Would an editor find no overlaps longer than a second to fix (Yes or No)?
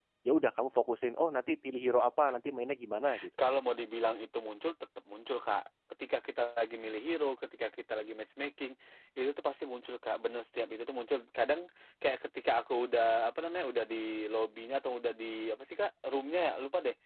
Yes